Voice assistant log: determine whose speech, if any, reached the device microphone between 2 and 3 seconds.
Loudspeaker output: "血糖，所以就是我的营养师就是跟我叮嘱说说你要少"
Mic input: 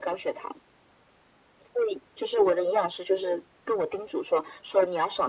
echo only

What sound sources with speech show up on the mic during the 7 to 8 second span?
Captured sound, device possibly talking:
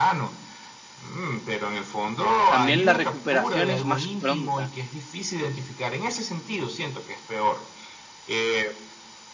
echo only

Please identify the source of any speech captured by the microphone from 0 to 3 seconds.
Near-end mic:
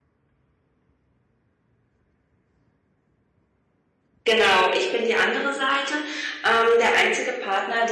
neither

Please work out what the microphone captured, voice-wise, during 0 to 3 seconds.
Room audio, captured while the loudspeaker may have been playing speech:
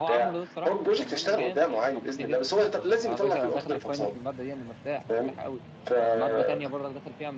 both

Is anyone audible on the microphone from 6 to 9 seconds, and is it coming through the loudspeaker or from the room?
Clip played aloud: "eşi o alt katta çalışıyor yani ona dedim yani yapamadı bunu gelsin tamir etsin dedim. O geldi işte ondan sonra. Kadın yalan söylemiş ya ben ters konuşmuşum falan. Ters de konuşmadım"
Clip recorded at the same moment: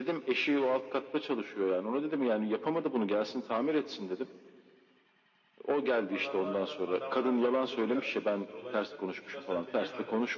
both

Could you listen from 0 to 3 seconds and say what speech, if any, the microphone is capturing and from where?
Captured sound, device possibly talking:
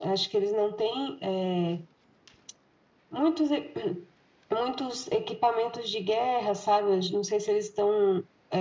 echo only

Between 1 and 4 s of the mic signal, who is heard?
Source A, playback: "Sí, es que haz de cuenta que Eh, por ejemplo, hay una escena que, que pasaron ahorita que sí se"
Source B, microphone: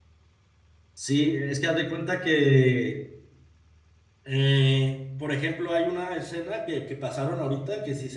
echo only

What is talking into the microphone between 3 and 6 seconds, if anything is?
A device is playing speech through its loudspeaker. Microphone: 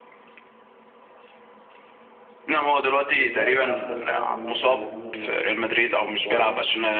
both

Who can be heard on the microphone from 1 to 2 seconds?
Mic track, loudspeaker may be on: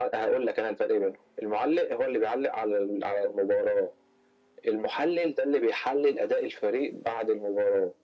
echo only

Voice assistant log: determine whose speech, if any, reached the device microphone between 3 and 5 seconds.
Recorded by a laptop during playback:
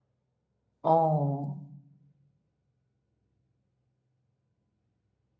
neither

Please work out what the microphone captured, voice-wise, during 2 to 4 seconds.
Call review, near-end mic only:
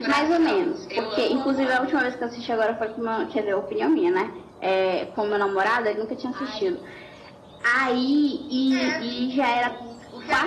echo only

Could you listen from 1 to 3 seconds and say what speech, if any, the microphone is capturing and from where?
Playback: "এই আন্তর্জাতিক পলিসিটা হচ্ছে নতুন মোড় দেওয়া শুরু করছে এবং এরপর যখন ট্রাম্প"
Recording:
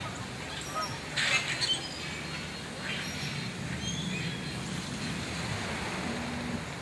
neither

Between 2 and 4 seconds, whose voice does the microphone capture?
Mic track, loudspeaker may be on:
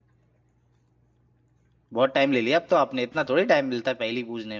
user only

